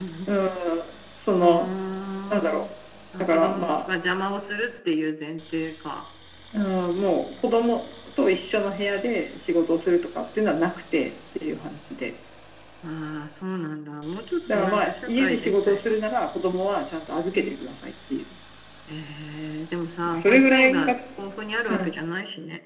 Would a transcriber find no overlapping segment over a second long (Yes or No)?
No